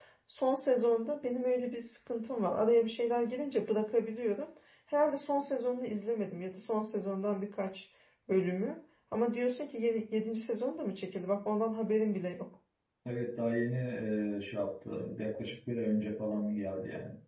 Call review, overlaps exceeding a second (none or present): none